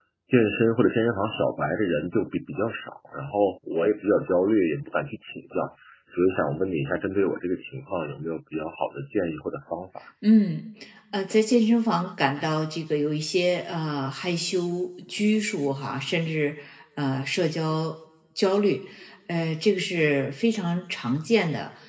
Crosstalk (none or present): none